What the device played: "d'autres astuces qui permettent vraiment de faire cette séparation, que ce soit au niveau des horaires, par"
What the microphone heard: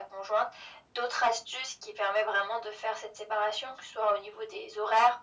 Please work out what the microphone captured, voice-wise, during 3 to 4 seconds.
echo only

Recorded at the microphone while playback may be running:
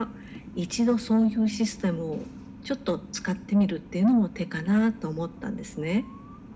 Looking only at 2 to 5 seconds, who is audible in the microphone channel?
echo only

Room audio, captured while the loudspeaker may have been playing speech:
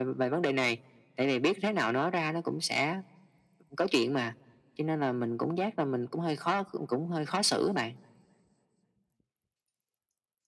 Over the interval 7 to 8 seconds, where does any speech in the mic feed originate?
echo only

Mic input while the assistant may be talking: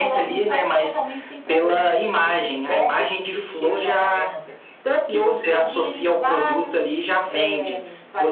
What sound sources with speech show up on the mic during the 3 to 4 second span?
echo only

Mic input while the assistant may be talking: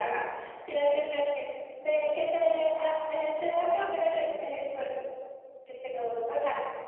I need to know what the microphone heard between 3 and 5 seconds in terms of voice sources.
echo only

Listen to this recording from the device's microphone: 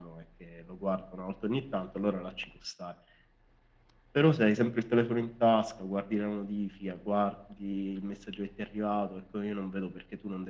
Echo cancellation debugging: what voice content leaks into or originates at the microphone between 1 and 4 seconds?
echo only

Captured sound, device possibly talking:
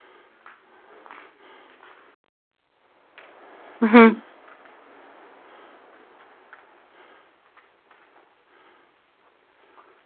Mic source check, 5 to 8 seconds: neither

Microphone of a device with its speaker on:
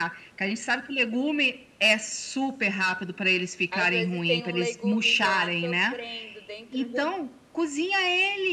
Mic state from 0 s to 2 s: echo only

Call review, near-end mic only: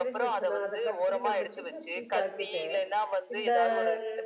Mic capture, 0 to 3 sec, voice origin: both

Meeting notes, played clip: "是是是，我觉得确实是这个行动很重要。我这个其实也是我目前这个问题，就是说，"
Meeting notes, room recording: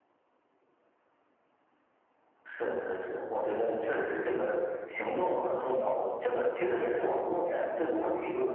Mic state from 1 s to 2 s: neither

